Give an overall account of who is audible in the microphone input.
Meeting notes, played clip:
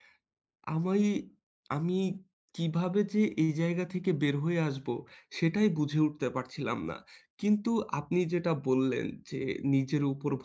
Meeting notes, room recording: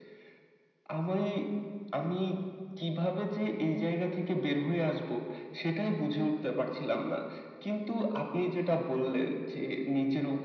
echo only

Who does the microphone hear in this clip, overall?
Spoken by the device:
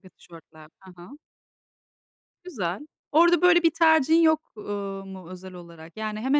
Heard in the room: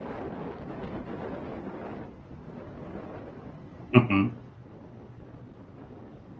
user only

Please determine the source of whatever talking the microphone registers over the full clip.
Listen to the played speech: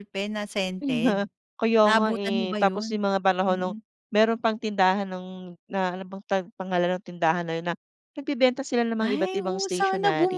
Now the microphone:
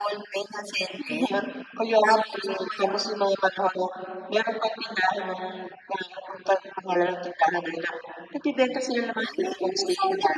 echo only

